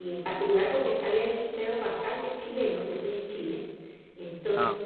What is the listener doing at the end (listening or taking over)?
listening